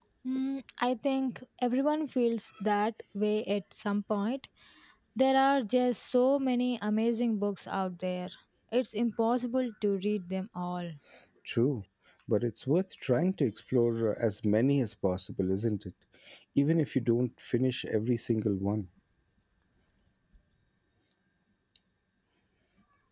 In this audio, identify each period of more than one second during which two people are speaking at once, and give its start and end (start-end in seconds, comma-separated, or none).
none